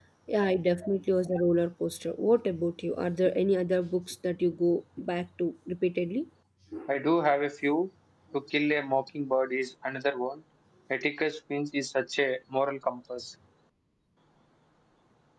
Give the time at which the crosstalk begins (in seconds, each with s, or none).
none